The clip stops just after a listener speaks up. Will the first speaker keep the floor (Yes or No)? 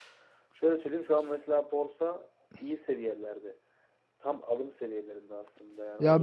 No